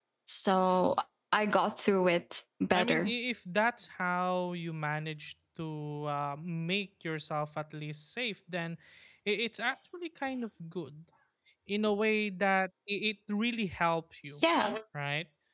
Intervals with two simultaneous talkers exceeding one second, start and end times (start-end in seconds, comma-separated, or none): none